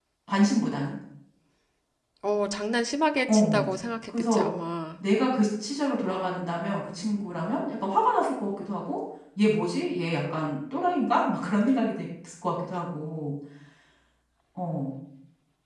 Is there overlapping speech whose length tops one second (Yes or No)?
No